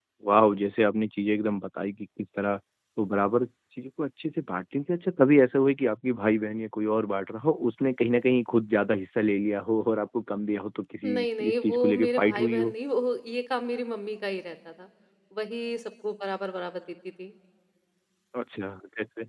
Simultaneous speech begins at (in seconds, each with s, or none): 11.0 s